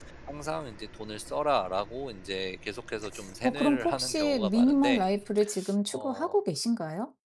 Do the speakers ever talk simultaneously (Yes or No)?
Yes